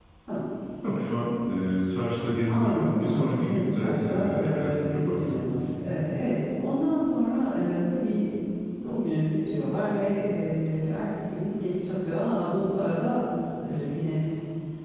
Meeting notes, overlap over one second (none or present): present